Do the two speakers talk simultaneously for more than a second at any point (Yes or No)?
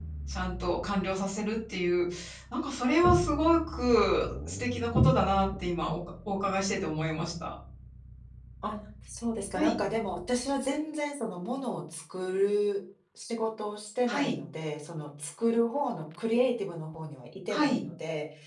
No